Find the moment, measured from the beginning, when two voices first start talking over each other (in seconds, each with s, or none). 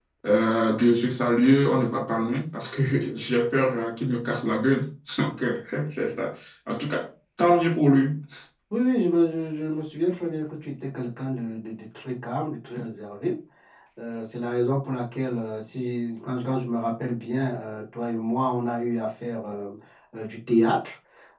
none